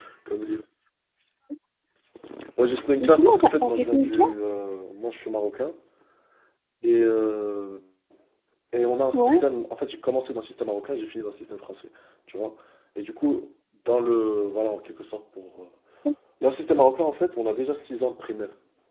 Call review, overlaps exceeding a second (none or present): present